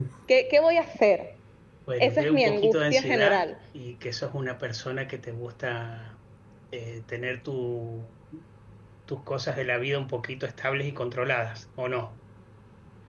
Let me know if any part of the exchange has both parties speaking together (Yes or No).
Yes